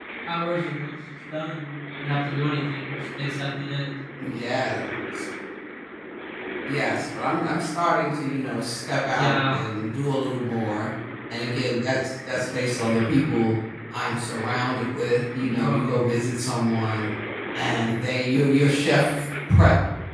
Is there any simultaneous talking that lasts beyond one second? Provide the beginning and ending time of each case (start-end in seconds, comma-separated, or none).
none